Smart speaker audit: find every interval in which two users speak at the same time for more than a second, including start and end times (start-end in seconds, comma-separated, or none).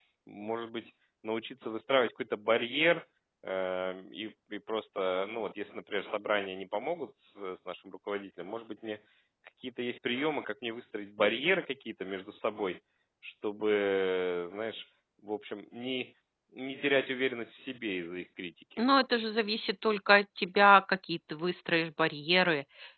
none